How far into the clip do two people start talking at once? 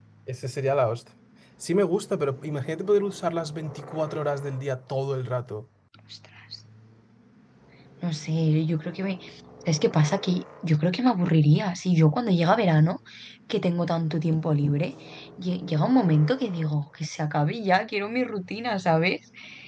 none

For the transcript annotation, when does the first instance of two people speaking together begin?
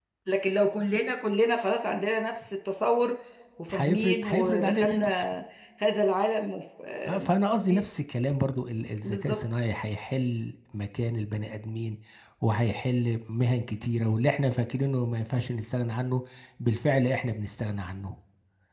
4 s

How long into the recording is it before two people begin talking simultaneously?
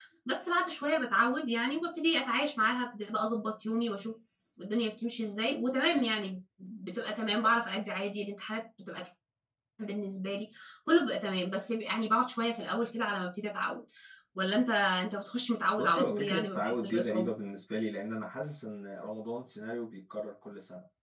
16 s

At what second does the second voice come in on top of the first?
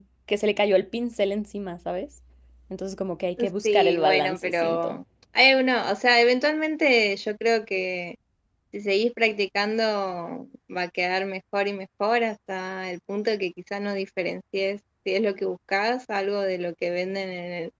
4 s

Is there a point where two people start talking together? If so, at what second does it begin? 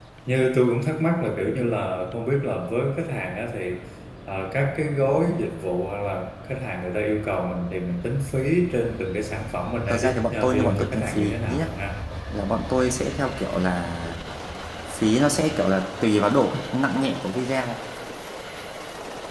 10 s

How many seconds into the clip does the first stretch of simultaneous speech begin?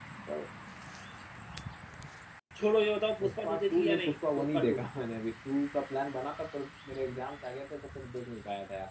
3 s

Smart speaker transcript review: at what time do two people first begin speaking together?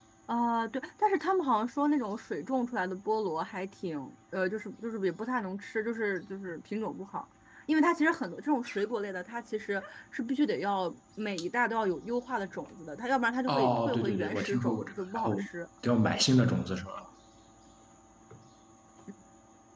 13 s

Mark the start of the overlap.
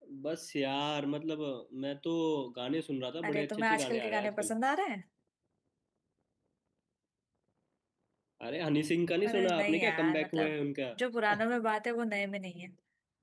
3 s

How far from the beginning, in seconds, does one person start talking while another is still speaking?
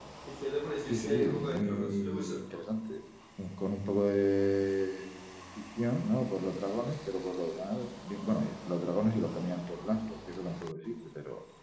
1 s

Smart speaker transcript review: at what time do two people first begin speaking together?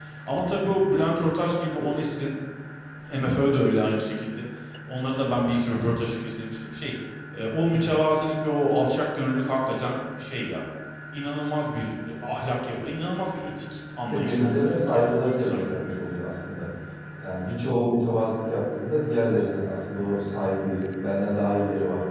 14 s

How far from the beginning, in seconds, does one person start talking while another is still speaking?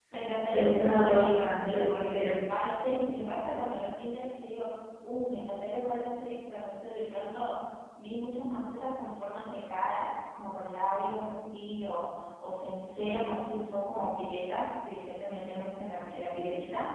1 s

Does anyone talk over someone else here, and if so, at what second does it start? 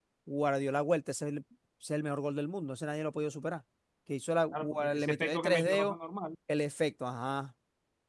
5 s

